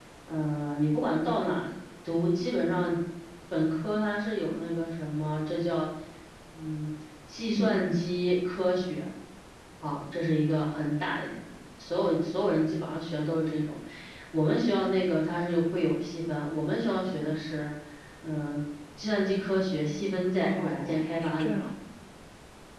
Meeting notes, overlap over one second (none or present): present